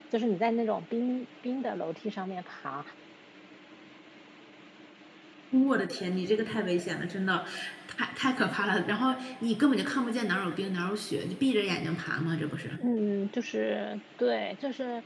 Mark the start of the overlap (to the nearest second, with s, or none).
none